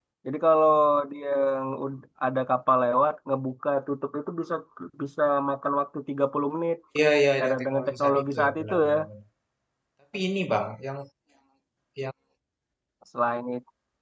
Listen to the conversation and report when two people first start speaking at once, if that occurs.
7.4 s

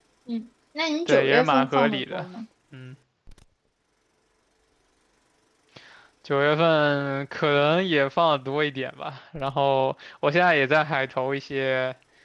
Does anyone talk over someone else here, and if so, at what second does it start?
1.1 s

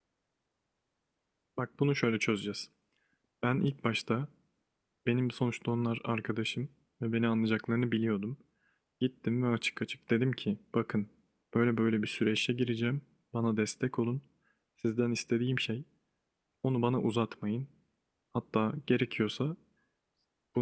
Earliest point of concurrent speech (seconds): none

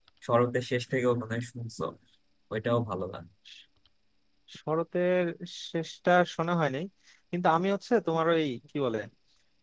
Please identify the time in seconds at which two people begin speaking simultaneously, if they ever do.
none

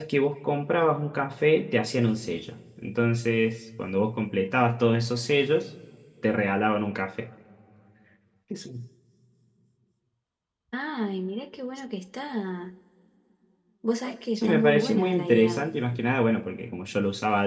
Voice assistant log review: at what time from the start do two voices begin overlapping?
14.3 s

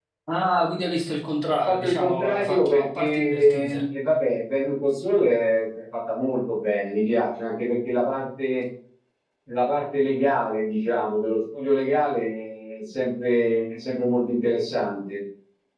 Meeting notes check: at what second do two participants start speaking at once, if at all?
1.6 s

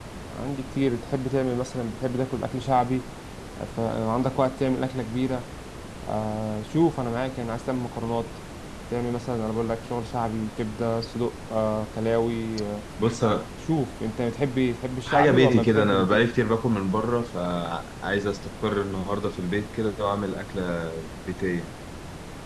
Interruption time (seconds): 15.1 s

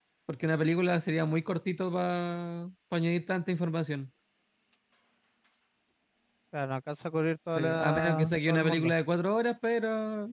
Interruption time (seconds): 7.6 s

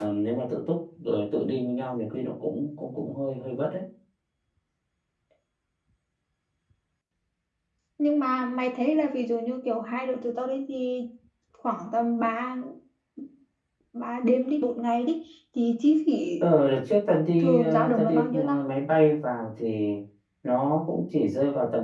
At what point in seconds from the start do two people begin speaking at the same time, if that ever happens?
17.4 s

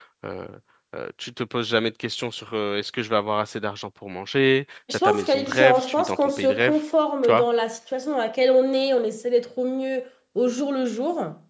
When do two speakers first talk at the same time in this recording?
4.9 s

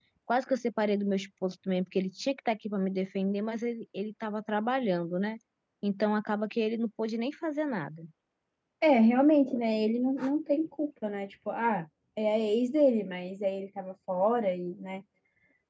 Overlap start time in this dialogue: none

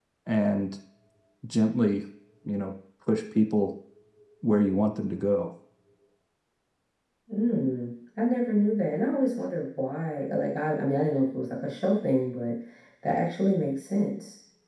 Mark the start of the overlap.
none

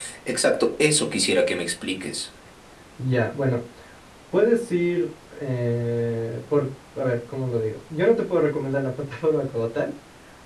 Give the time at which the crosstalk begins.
none

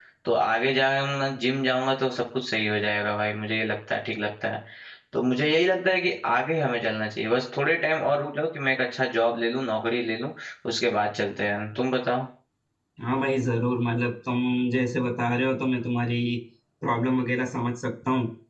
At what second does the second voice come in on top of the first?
none

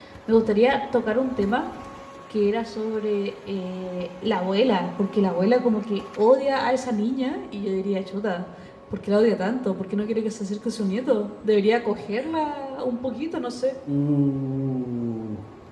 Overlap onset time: none

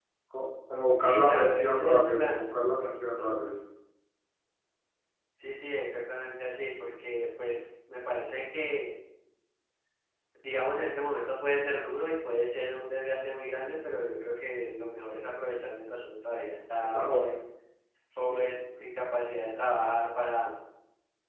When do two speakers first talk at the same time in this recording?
1.0 s

